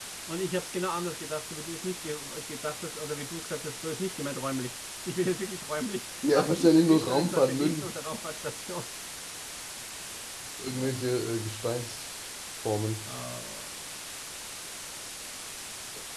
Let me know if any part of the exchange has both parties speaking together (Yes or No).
Yes